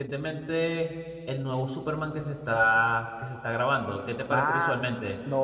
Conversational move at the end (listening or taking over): taking over